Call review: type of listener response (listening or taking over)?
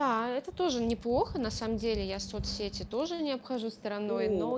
taking over